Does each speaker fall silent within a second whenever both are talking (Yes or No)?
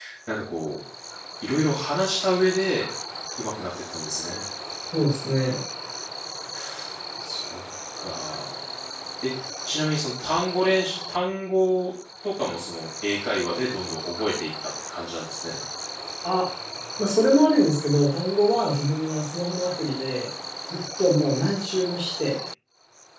Yes